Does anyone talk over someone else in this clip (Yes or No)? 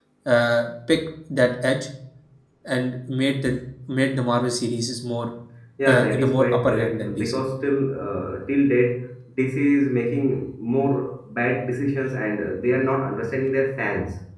Yes